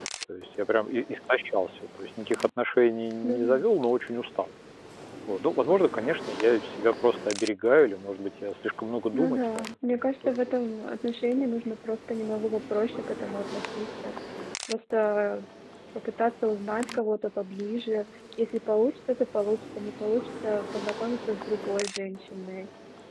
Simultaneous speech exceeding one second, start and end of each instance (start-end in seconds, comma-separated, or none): 9.1-10.7